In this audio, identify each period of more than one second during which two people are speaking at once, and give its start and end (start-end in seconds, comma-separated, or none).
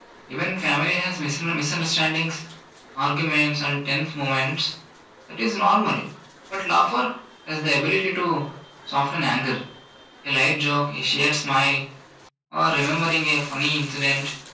none